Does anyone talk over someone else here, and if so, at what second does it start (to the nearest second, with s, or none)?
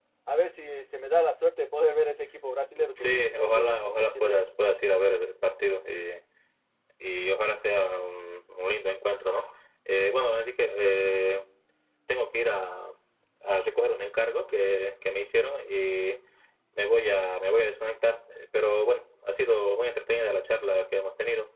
3 s